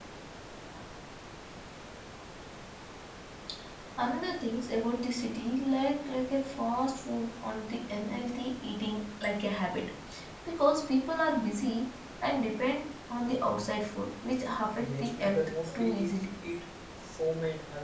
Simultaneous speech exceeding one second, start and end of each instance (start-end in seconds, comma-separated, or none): 14.7-16.1